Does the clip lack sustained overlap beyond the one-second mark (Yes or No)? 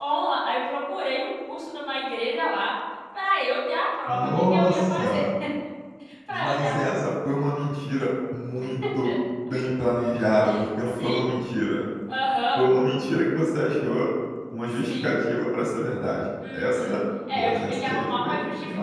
No